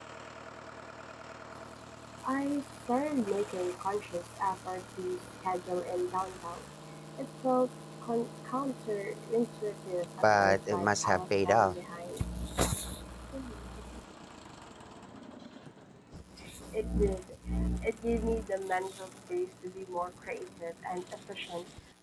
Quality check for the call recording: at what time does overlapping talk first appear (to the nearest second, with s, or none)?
10 s